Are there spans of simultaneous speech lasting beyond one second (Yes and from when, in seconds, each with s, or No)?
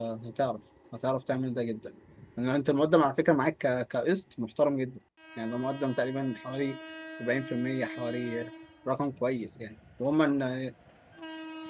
No